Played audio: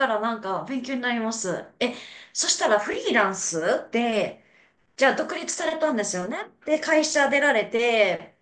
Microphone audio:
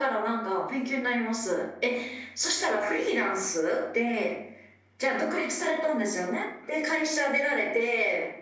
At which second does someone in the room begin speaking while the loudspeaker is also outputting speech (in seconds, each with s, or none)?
none